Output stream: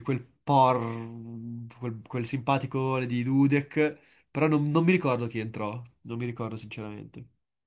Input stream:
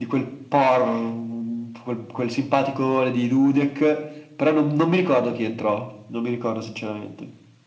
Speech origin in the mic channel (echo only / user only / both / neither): echo only